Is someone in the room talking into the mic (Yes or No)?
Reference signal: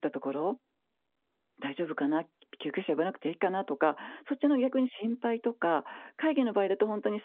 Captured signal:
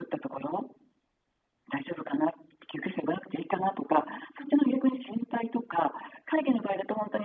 No